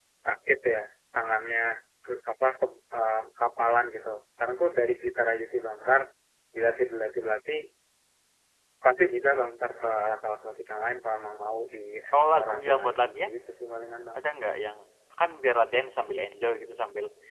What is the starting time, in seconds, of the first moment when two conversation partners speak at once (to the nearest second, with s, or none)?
12 s